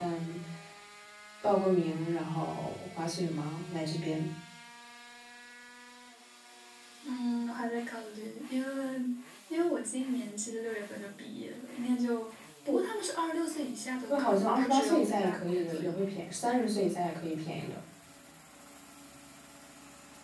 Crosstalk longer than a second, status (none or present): present